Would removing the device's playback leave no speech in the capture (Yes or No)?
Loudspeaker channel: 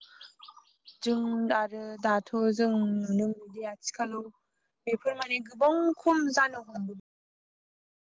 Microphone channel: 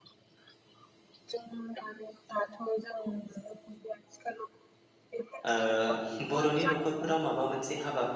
No